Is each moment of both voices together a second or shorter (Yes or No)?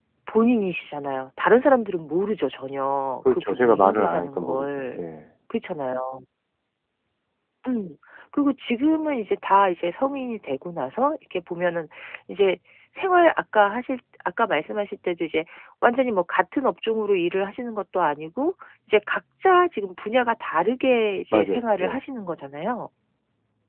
No